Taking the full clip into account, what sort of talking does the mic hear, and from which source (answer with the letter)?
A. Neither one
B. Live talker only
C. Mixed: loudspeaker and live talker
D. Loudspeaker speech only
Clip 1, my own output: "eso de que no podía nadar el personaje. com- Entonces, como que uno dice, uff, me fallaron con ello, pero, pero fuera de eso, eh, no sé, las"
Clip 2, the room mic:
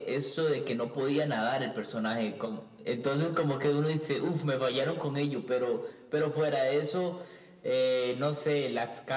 D